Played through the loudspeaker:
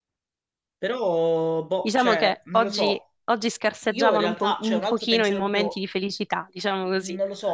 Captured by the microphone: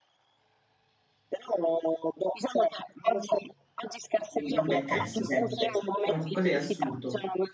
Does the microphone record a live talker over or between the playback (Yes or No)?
Yes